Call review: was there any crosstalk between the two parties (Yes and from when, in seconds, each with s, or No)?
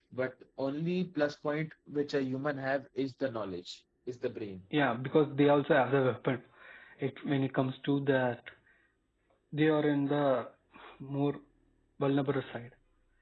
No